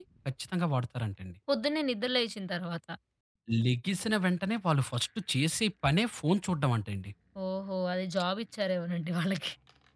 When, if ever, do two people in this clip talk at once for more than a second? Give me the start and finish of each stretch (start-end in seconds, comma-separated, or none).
none